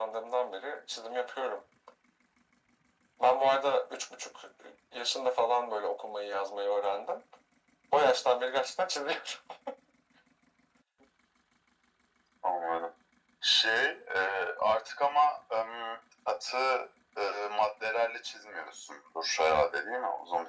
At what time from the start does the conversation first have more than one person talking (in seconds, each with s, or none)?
none